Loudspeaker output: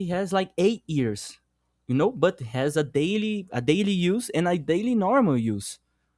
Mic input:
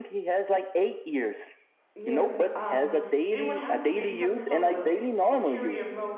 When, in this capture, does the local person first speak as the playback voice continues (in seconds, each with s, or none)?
1.9 s